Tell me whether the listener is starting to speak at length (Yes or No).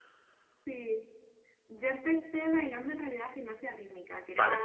No